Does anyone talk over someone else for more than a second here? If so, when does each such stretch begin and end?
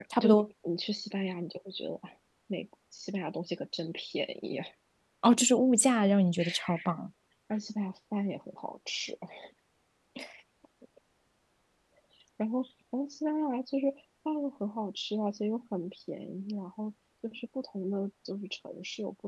none

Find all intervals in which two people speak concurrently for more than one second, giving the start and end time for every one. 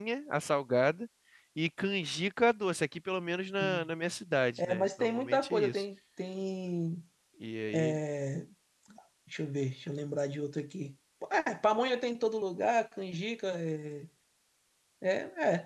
4.6-5.8

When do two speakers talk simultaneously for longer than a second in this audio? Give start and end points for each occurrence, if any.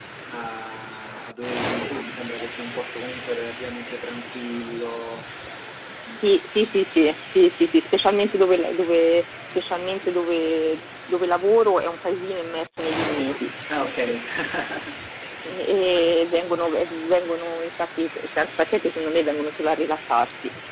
none

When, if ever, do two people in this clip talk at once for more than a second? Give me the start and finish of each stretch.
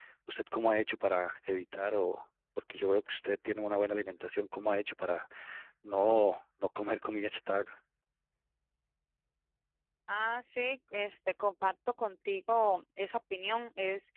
none

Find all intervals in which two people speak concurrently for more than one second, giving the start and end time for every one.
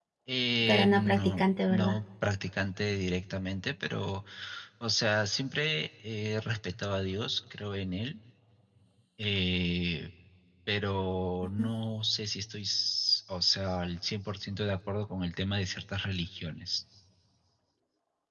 0.7-2.0

